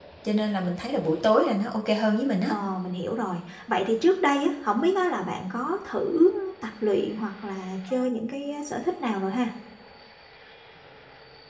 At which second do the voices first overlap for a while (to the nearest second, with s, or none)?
none